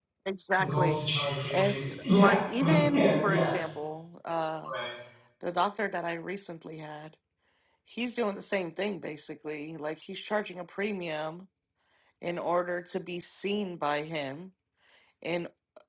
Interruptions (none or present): present